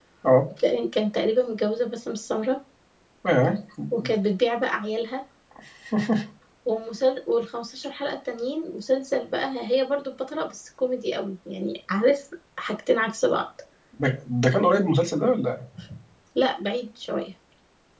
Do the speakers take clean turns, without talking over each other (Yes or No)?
Yes